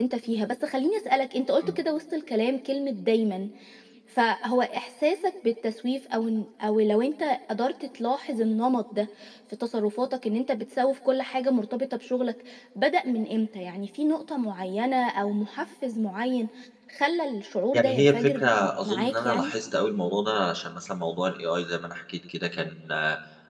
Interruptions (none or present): present